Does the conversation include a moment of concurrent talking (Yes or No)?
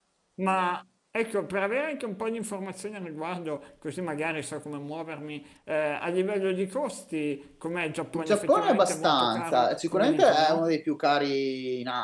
Yes